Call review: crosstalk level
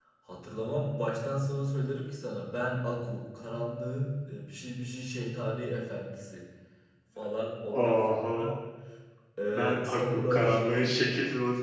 present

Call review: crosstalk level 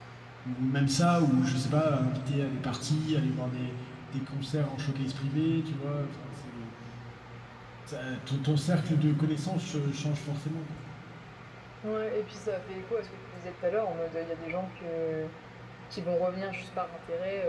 none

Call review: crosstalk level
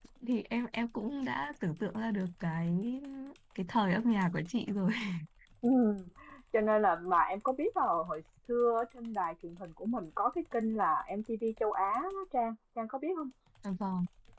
none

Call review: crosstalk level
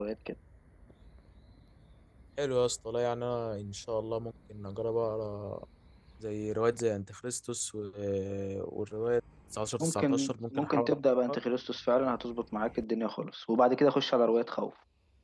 present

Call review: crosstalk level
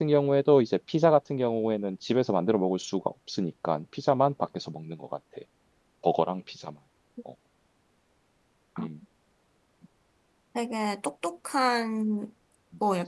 none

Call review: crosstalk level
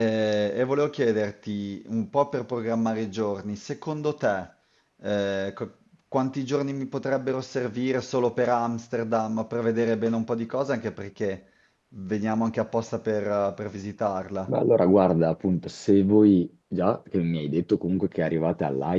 none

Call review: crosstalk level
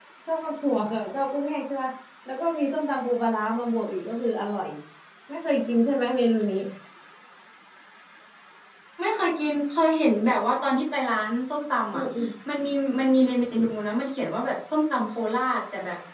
none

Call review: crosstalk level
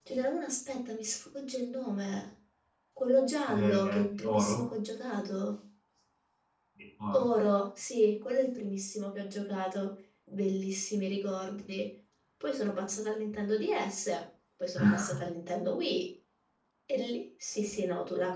present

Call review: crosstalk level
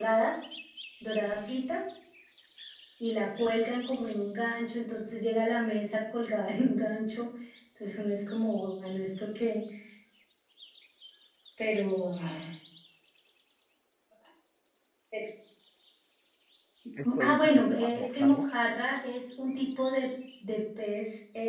present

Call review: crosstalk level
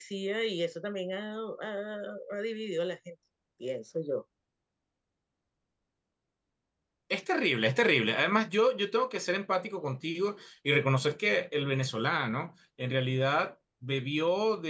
none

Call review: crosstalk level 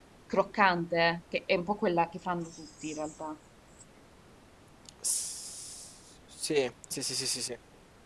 none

